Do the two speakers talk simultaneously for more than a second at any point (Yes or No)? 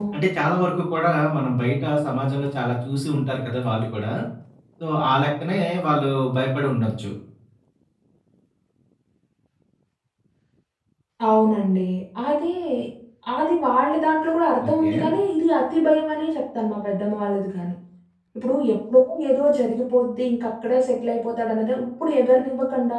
No